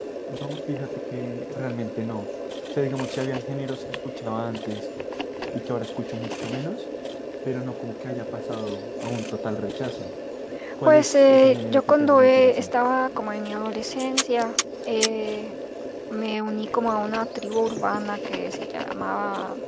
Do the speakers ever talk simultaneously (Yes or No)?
Yes